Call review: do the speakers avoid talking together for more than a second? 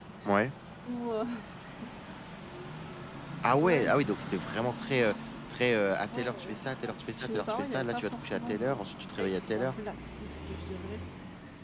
No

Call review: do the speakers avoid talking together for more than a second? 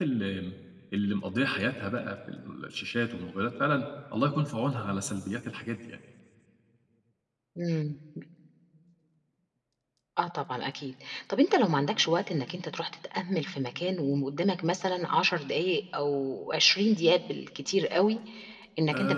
Yes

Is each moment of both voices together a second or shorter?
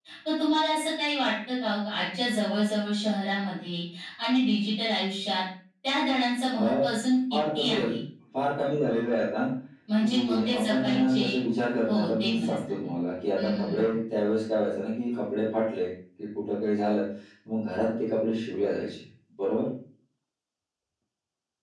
No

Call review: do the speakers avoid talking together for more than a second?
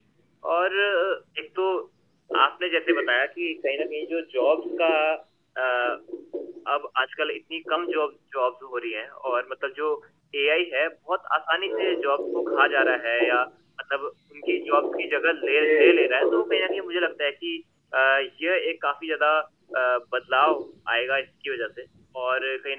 No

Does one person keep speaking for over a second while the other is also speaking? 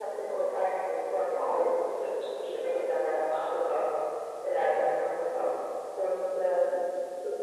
No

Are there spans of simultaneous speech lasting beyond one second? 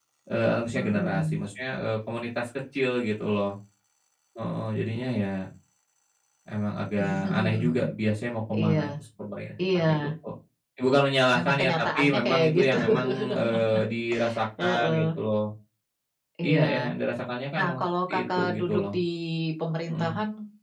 Yes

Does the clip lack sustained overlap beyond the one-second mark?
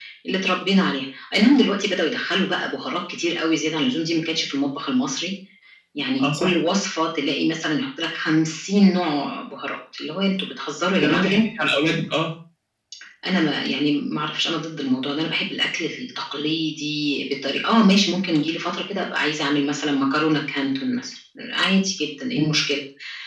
Yes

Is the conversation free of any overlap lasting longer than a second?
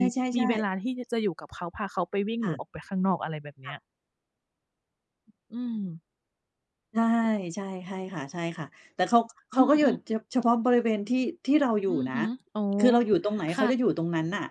Yes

